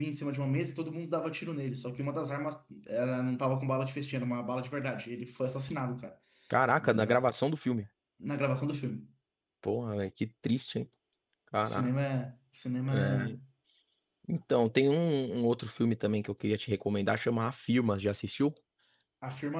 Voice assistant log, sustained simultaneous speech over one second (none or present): none